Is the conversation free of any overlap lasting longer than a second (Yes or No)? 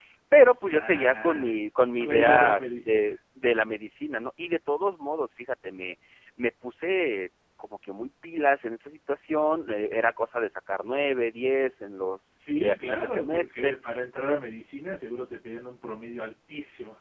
No